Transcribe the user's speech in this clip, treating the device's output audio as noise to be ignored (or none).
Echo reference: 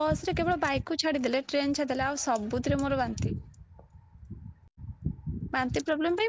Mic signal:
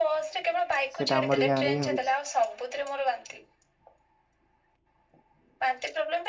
ସେଇଟା ଆମରି ଗାଁରେ ହିଁ ହଉଛି।